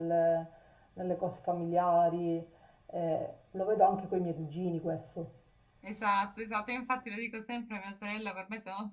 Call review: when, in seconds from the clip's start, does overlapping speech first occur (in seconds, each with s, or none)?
none